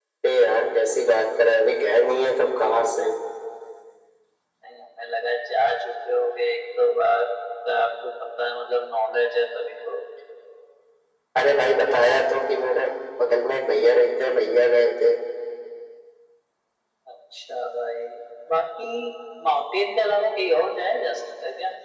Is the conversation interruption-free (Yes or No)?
Yes